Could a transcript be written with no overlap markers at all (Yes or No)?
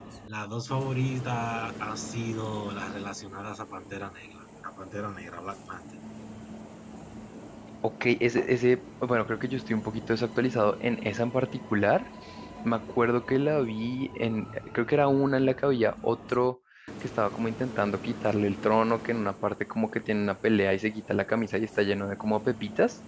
Yes